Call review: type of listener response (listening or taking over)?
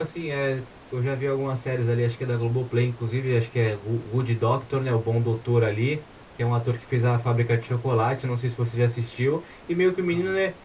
listening